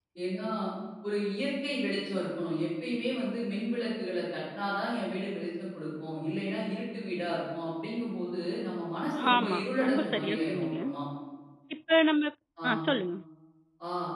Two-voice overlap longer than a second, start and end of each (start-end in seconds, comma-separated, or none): 9.3-10.8